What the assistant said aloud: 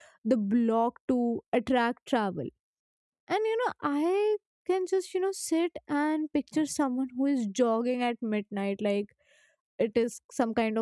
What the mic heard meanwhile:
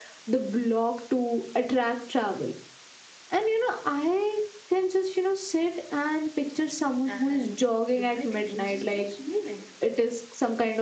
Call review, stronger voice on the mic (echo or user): echo